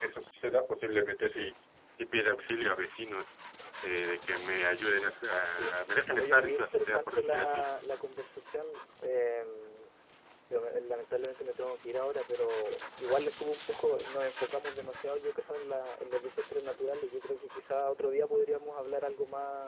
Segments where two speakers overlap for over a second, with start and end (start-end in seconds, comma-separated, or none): 6.2-7.6